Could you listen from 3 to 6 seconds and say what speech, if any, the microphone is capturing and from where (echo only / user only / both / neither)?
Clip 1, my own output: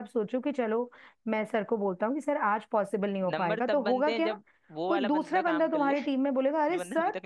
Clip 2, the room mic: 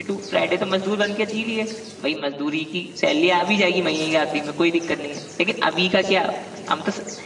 user only